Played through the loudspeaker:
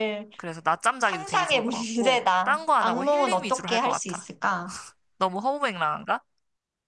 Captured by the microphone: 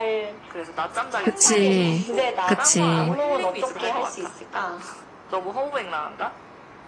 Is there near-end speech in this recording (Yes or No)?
Yes